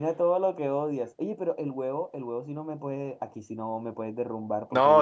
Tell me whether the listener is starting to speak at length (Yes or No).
Yes